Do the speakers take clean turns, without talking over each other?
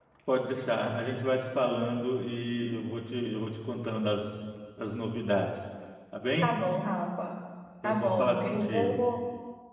No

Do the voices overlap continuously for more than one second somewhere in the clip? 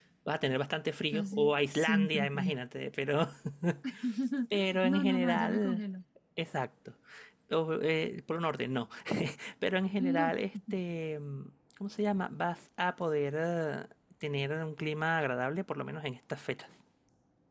Yes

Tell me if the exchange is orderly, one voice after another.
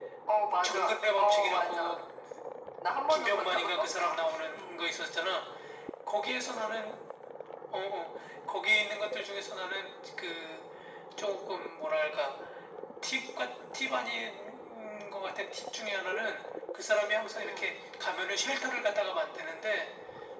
No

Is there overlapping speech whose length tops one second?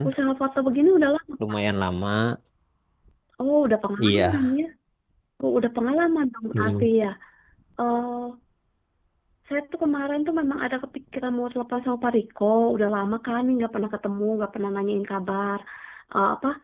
No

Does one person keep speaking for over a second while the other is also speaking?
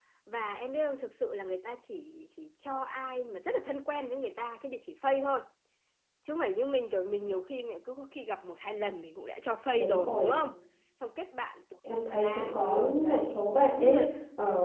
Yes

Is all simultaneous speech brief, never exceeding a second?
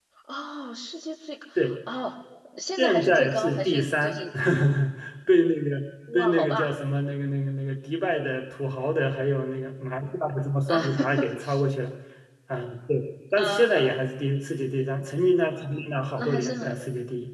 No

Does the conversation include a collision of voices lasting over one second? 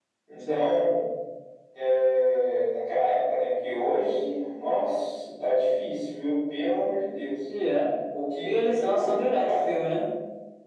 Yes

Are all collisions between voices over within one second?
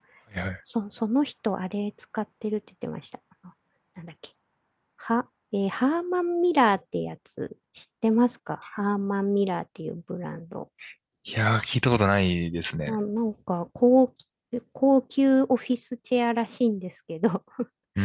Yes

